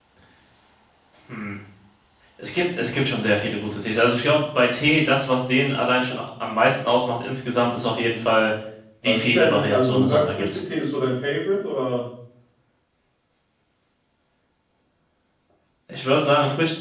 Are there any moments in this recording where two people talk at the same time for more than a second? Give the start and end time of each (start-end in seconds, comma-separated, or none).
9.1-10.6